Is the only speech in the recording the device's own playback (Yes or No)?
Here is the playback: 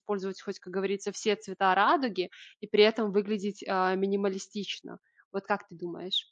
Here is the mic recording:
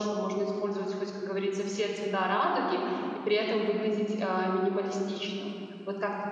Yes